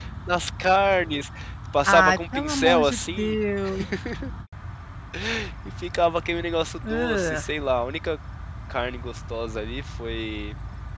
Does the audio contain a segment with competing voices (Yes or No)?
Yes